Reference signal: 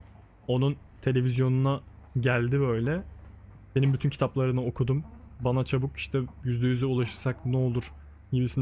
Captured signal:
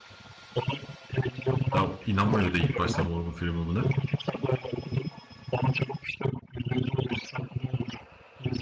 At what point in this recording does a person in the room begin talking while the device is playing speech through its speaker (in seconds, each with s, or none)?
1.7 s